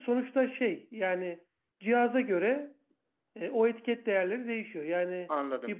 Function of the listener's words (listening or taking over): listening